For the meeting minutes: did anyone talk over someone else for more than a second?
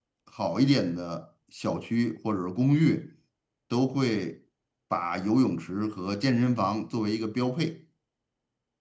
No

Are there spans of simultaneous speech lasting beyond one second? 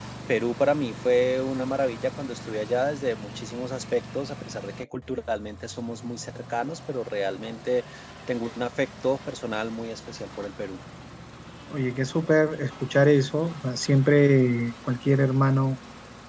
No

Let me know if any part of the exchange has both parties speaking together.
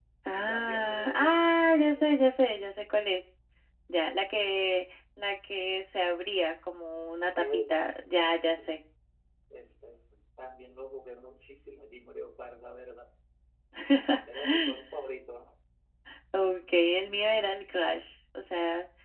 Yes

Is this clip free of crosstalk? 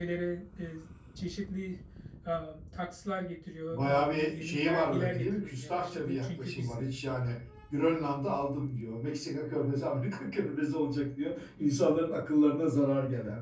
No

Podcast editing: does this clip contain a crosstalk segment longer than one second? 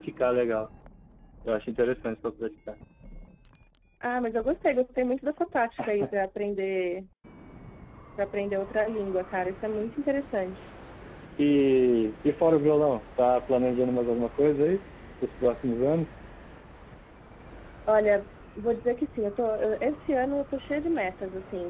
No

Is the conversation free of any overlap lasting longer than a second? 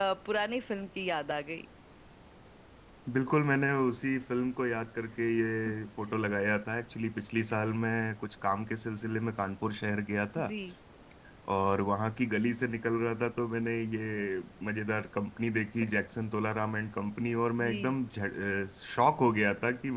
Yes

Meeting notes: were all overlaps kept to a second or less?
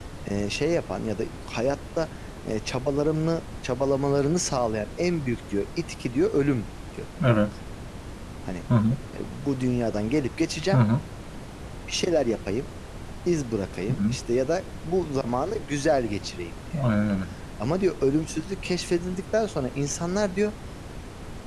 Yes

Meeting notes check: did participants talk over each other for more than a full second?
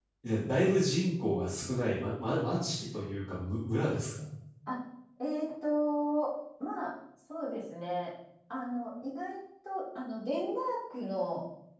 No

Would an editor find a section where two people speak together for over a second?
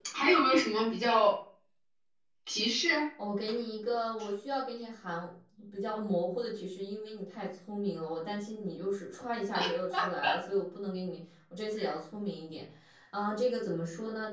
No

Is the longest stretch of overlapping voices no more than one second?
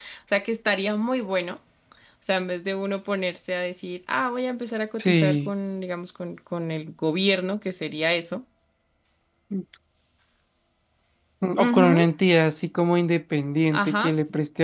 Yes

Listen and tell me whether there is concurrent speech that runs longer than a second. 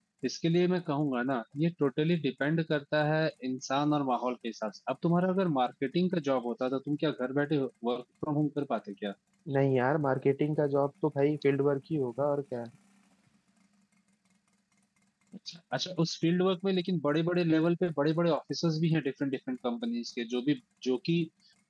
No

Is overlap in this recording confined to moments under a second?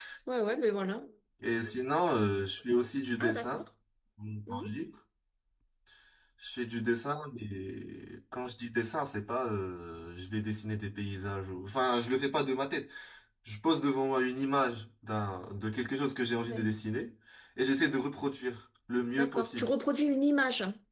Yes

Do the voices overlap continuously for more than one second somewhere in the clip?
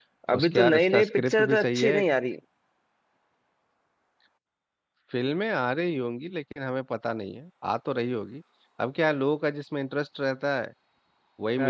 Yes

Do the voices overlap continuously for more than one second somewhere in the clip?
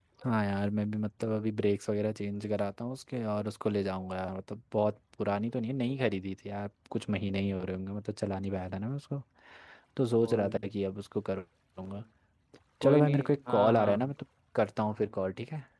Yes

